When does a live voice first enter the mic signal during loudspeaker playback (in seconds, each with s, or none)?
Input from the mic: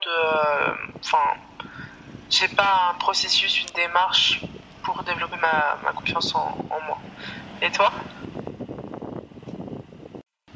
none